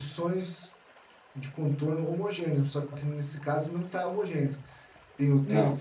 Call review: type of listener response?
listening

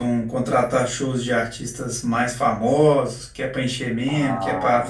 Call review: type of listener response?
listening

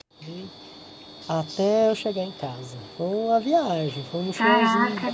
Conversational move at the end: taking over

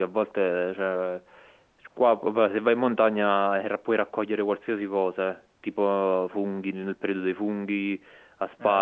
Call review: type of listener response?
listening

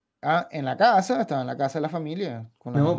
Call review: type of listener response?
taking over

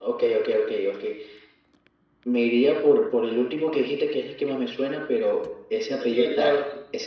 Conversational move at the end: listening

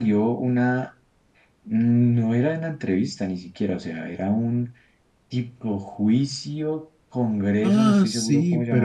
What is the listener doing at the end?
taking over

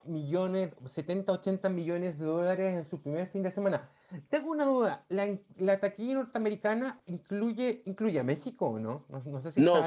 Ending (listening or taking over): taking over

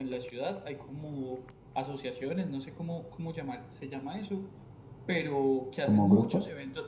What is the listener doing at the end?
listening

